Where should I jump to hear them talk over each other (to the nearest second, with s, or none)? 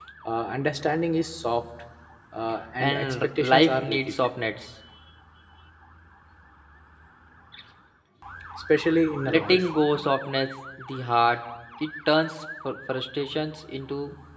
3 s